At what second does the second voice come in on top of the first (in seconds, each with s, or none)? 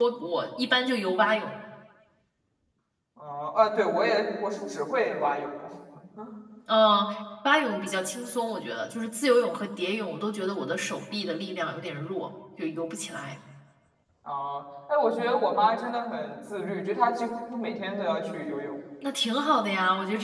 none